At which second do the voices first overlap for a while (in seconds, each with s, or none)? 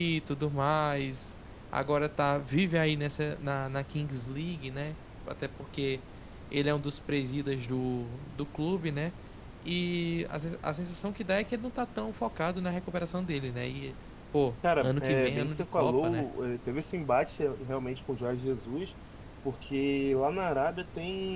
14.6 s